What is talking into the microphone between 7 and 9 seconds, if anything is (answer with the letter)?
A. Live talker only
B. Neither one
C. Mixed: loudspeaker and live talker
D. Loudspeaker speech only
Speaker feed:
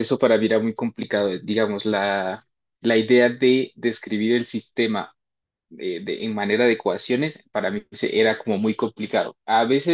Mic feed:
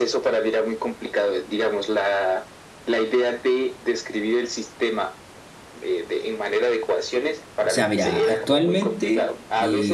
C